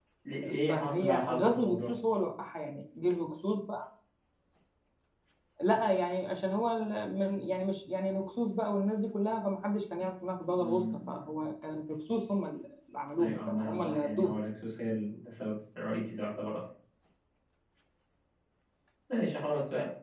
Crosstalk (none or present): present